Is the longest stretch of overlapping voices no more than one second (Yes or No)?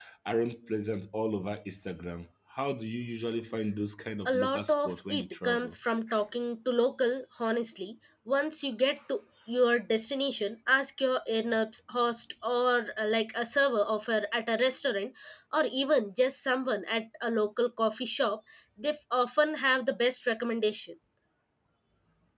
No